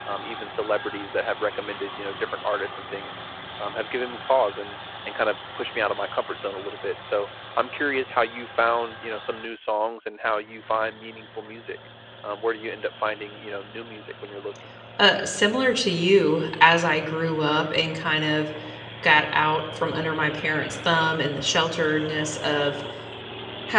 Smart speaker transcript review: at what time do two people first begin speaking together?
none

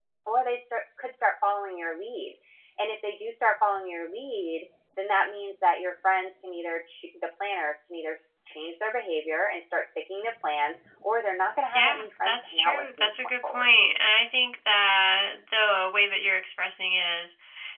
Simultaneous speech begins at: 11.7 s

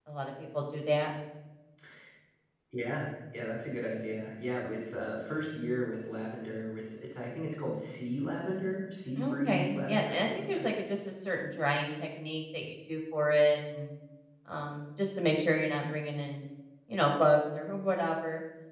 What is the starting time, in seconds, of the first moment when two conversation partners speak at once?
9.2 s

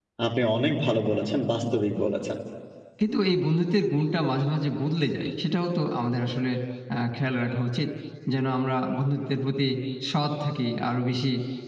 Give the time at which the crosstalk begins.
none

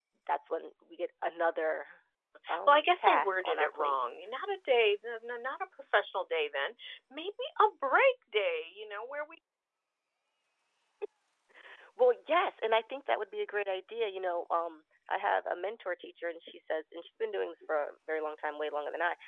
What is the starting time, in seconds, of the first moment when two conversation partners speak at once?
2.7 s

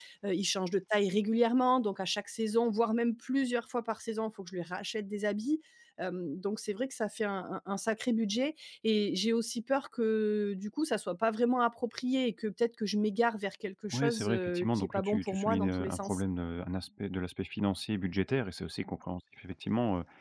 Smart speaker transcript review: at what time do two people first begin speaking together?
13.9 s

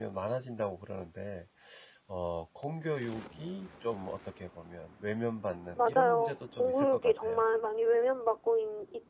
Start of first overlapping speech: 5.8 s

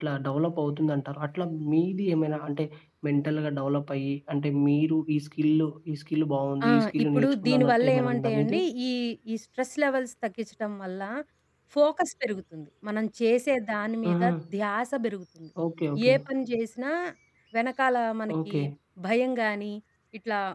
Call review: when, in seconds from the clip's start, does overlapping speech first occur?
6.7 s

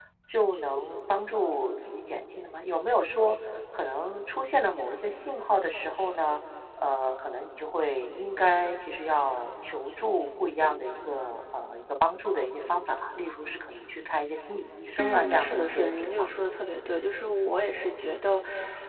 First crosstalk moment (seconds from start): 15.0 s

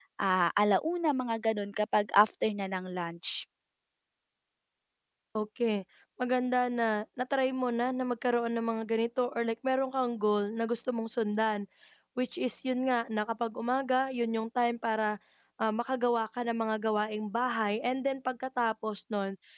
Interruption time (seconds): none

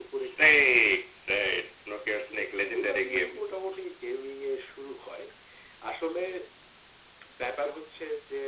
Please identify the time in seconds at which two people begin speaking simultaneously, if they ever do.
2.0 s

